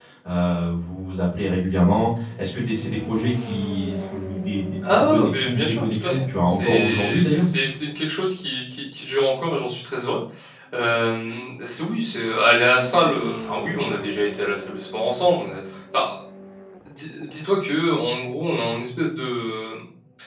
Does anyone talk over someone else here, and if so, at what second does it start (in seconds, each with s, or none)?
4.8 s